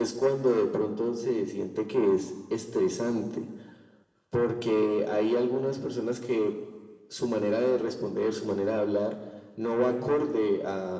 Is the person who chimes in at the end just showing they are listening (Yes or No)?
Yes